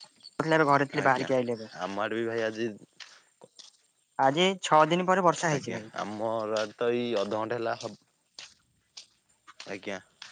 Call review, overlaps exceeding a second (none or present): none